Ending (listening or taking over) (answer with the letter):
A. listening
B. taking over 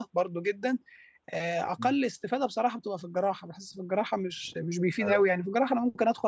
A